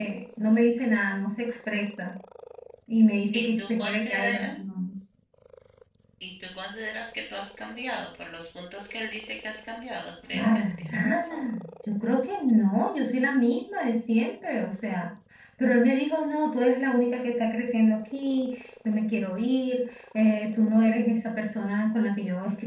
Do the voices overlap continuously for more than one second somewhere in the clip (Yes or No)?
Yes